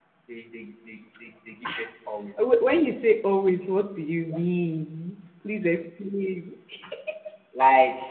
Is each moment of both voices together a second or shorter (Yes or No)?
Yes